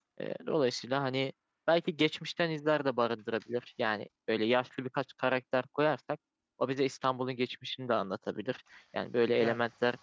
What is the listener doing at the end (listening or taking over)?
listening